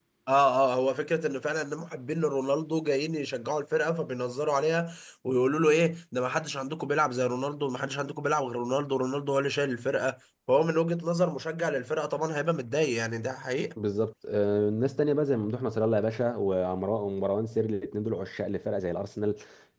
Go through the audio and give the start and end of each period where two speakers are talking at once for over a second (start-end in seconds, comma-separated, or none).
none